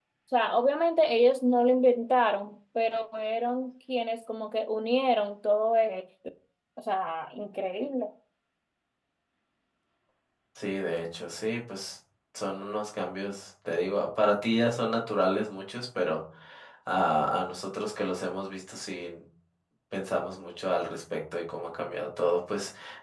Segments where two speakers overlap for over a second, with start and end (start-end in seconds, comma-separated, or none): none